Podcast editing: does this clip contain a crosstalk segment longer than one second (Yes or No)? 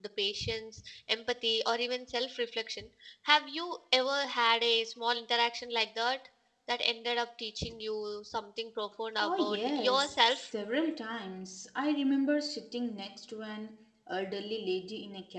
Yes